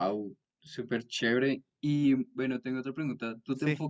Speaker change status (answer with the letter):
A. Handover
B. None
B